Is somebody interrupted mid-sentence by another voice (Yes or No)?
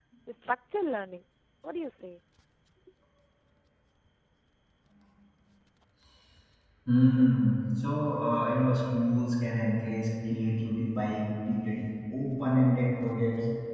No